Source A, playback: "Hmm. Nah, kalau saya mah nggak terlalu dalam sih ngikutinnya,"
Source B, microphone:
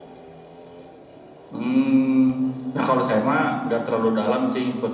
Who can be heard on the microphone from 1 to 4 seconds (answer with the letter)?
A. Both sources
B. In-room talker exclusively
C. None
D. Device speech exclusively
D